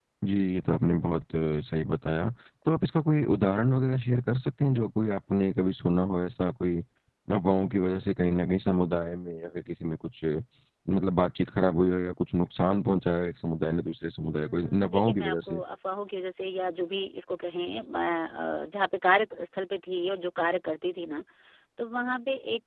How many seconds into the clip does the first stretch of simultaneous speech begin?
14.4 s

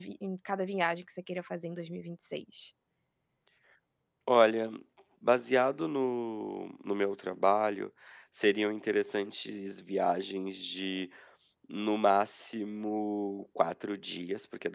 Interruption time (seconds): none

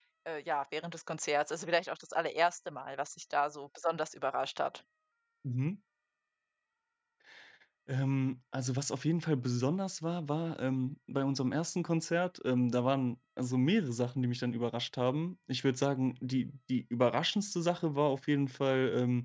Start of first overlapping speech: none

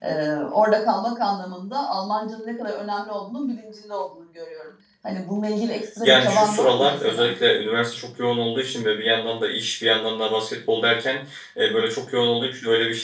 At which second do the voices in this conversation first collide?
6.0 s

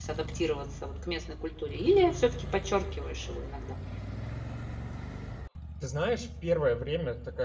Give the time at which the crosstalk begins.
none

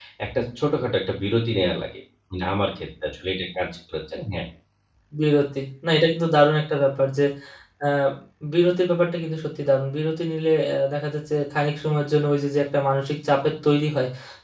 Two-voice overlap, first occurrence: none

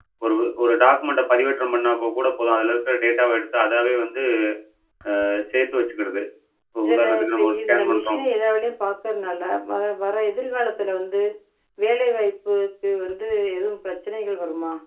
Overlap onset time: 6.8 s

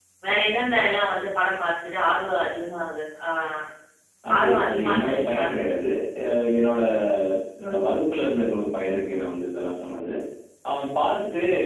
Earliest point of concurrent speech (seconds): 4.4 s

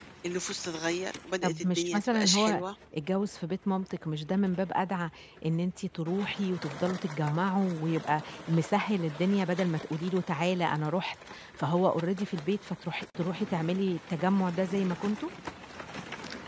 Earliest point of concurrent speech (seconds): 1.4 s

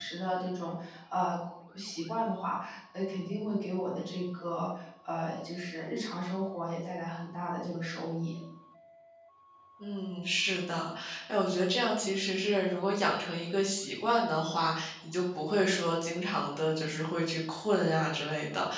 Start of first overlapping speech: none

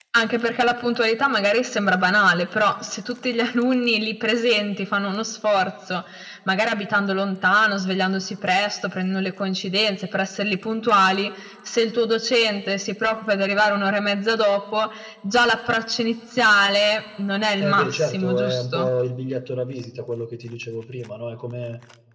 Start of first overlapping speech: 17.6 s

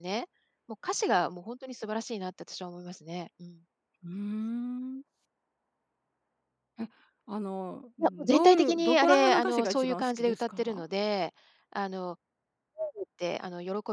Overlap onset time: 8.0 s

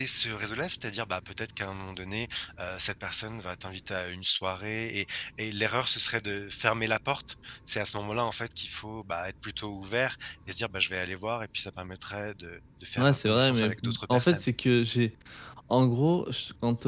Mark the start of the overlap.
13.0 s

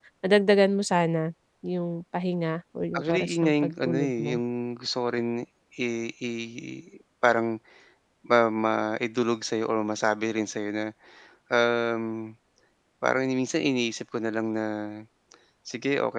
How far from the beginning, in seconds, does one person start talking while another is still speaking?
2.9 s

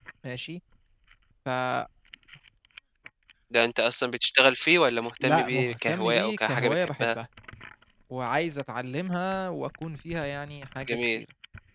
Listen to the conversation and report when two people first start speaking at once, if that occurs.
5.2 s

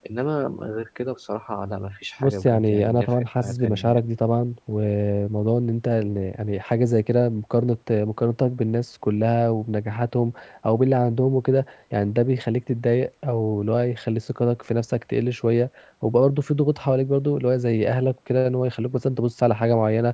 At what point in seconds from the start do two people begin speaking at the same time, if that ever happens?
2.2 s

